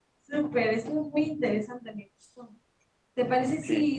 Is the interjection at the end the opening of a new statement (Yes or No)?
No